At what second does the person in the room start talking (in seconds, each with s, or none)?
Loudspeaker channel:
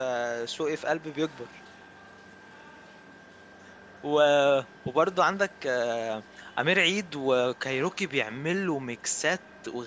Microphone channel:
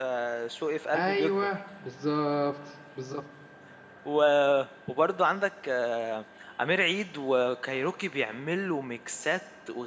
0.9 s